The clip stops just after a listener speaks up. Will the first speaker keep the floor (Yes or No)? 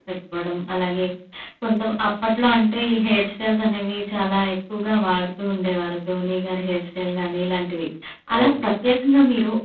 Yes